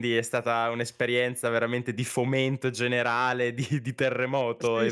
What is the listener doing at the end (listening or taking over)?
taking over